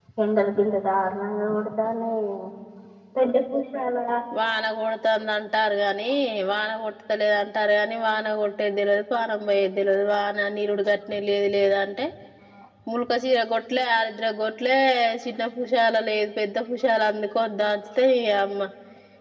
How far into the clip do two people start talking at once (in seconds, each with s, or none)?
none